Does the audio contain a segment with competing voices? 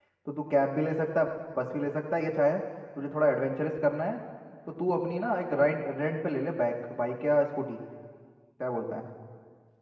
No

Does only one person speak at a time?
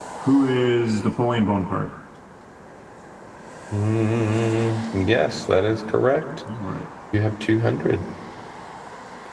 Yes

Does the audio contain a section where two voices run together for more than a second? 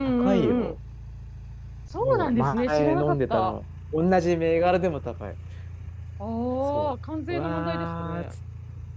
Yes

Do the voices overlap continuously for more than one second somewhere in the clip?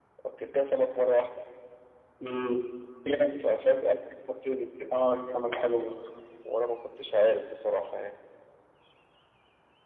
No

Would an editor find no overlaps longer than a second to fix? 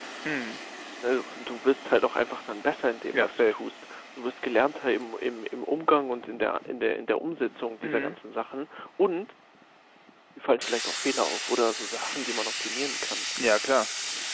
Yes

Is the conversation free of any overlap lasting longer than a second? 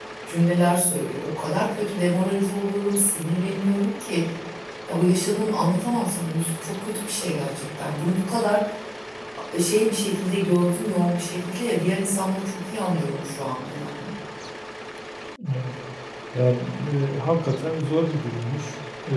Yes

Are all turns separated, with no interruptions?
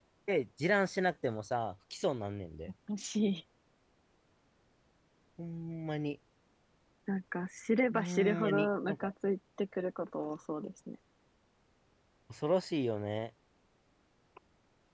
No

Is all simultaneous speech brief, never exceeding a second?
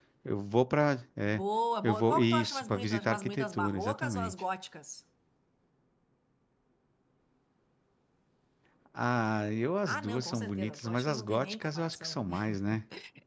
No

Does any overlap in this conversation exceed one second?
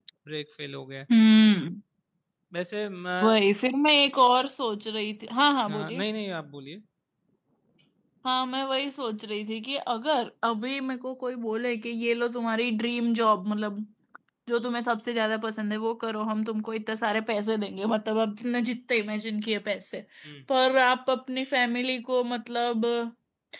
No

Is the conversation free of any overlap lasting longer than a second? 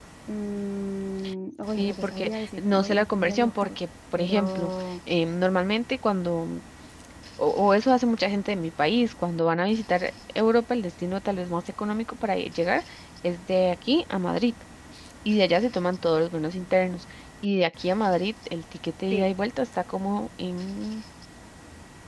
No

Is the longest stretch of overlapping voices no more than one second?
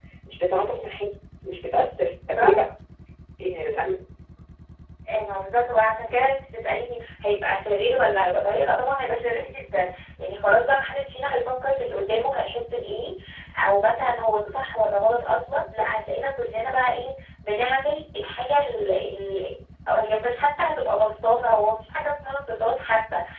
Yes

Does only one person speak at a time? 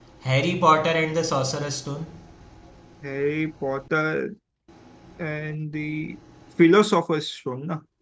Yes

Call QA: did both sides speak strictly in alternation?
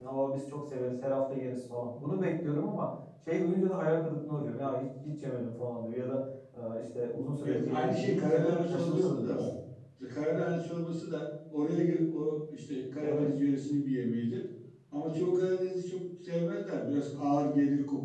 No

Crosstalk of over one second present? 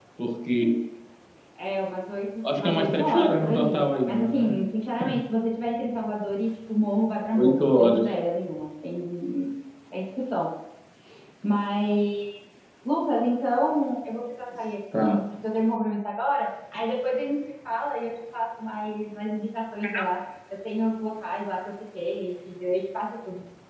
Yes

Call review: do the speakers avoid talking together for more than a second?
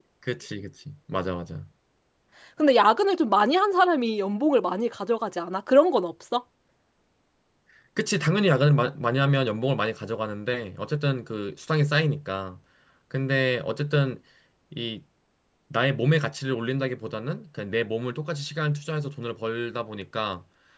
Yes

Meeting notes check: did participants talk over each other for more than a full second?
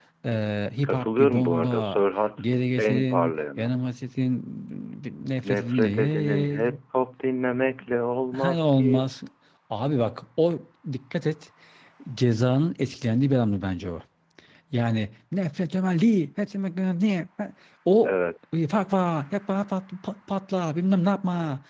Yes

